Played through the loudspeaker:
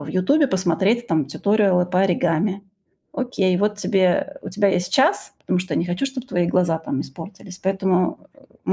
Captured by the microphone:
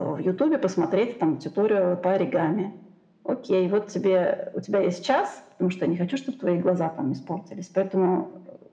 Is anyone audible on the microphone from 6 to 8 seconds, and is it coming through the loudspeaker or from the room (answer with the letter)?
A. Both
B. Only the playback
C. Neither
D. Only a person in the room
B